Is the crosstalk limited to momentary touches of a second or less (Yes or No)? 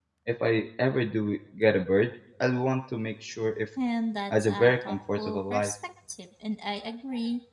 No